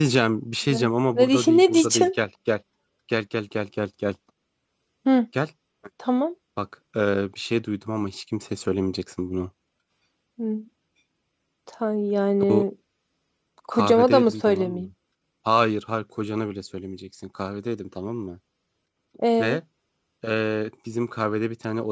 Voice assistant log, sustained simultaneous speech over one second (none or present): present